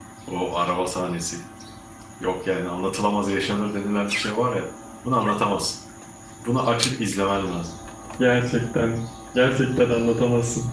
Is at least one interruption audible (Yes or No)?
No